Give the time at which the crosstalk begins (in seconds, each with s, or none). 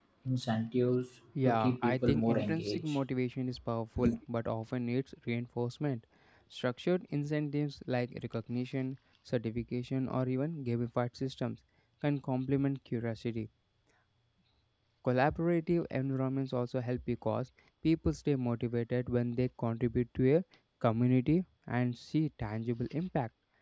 1.4 s